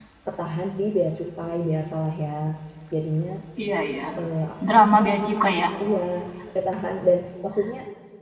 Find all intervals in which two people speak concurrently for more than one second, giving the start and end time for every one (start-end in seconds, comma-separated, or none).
none